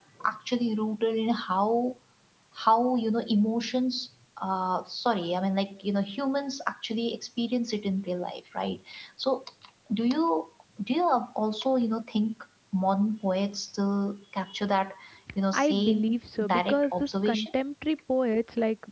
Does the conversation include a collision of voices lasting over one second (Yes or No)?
Yes